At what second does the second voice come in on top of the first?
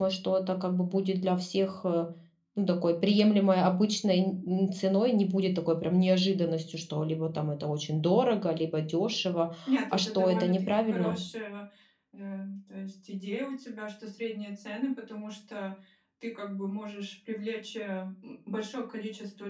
10 s

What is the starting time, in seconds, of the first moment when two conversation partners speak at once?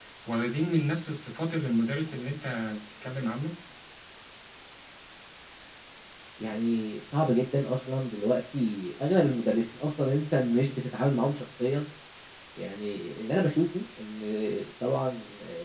none

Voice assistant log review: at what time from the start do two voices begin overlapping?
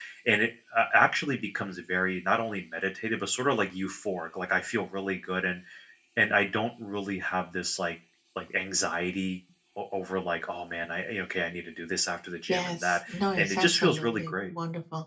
12 s

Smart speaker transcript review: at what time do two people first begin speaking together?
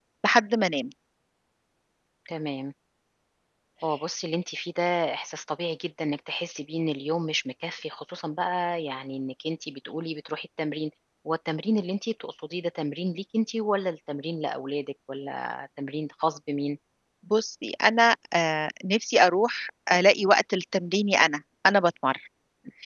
none

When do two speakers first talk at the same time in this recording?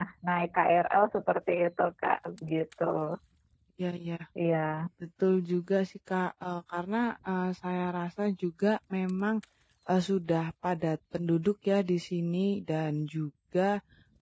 none

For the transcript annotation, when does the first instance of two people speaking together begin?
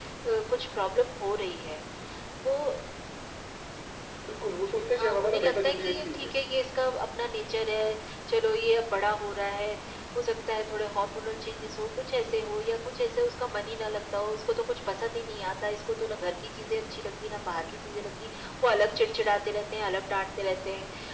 5 s

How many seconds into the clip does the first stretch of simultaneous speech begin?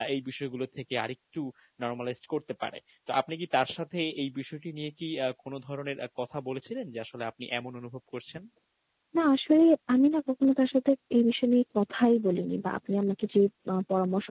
none

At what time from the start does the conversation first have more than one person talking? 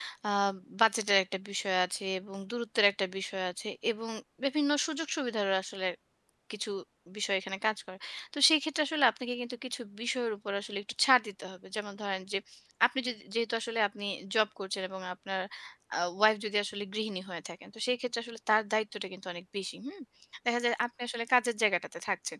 none

